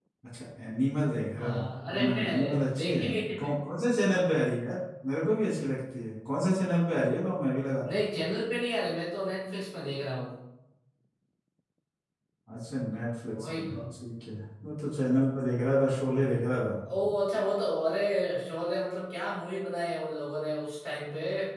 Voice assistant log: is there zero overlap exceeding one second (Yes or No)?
No